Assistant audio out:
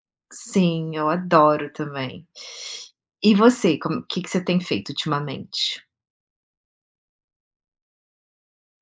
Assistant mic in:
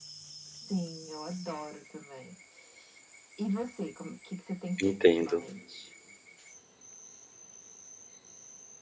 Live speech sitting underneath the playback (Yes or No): No